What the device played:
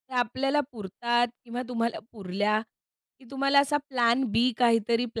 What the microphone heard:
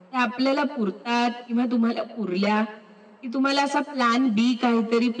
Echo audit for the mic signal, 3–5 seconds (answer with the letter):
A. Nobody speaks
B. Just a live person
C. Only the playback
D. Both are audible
C